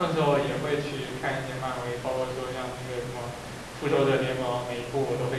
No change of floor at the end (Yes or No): Yes